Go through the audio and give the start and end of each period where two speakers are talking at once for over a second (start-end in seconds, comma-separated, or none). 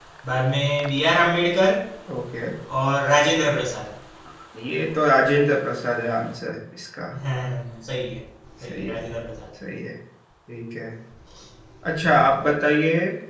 none